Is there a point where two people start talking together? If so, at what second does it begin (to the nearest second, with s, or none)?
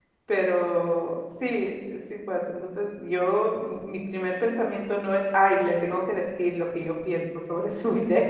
none